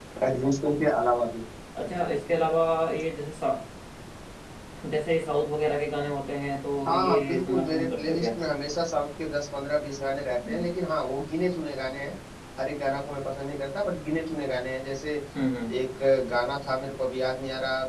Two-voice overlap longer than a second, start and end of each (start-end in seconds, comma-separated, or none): 6.9-8.3